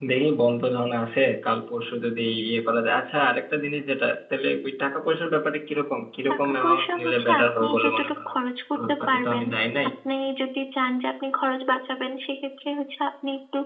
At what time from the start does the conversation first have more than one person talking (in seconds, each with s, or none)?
6.3 s